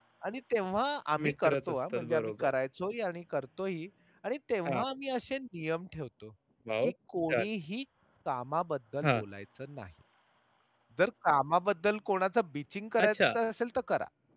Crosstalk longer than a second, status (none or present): present